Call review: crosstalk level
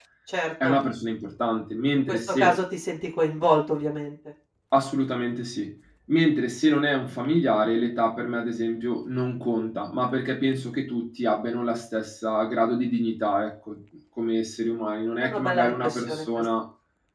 present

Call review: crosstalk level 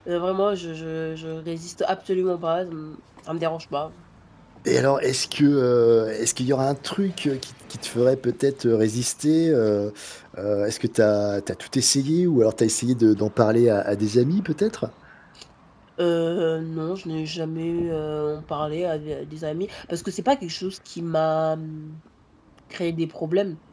none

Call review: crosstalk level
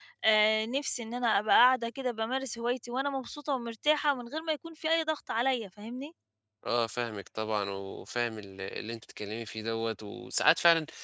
none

